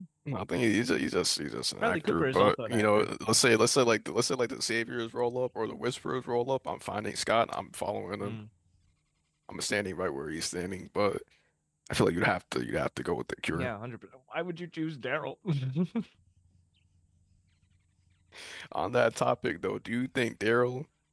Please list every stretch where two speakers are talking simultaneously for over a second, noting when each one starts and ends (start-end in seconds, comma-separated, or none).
1.8-3.4